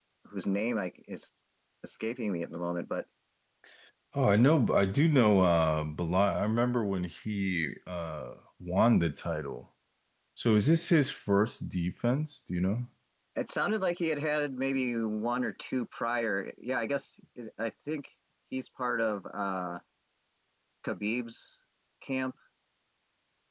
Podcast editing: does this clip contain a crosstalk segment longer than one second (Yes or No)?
No